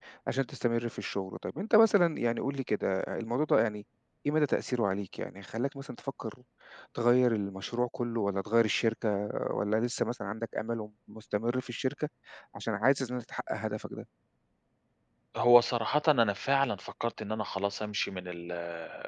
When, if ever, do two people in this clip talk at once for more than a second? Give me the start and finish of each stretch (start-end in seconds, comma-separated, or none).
none